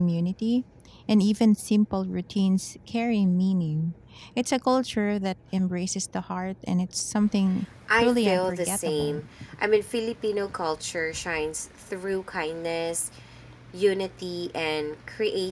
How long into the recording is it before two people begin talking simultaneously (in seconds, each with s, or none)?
7.9 s